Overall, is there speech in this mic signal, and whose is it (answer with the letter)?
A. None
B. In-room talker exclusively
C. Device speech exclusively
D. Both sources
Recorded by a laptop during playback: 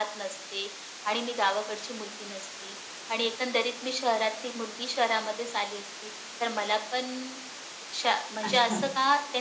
D